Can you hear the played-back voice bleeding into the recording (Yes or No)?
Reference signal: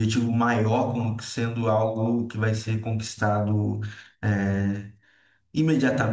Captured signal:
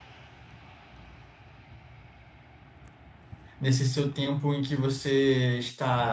No